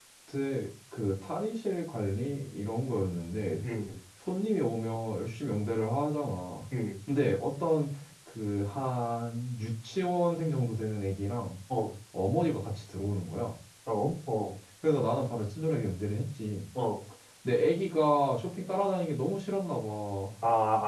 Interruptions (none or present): none